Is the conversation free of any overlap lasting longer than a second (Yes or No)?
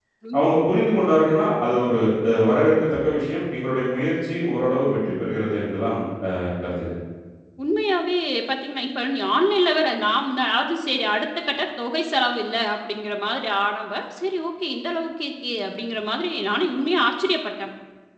Yes